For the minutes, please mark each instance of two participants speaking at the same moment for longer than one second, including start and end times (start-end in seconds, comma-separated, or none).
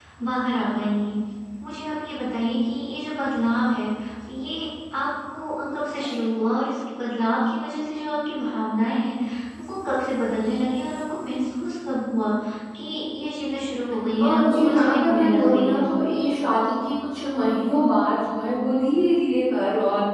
14.2-15.8